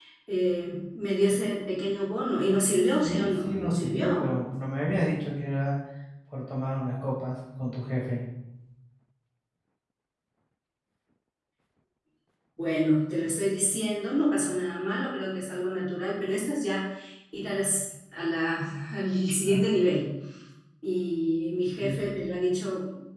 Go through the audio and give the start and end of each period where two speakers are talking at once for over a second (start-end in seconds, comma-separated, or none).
3.0-4.3